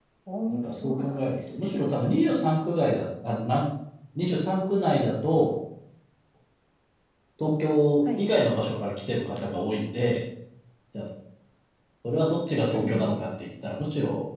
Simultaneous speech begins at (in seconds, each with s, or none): 0.5 s